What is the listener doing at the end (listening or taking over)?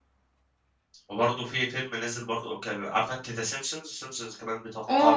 taking over